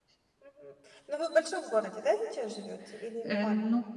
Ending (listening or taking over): taking over